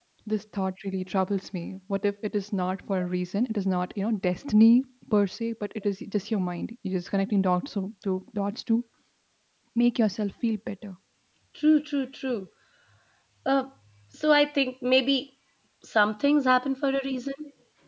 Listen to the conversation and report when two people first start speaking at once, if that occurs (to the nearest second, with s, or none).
none